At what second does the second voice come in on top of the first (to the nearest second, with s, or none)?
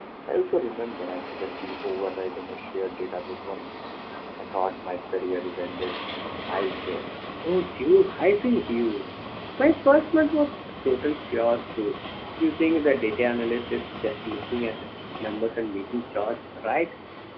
none